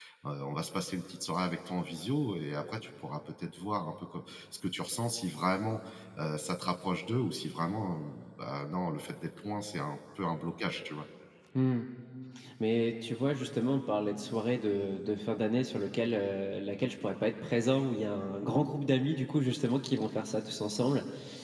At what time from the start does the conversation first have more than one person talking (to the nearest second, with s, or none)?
none